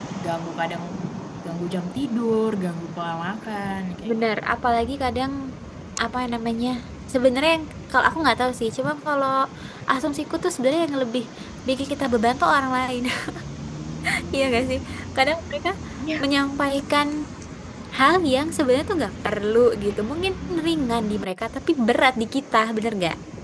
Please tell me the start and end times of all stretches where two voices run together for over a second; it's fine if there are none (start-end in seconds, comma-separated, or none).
none